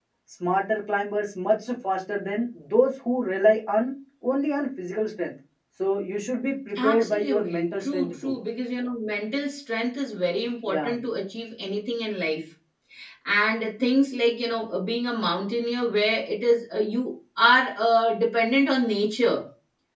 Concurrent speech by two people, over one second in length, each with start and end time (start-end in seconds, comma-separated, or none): 6.8-8.3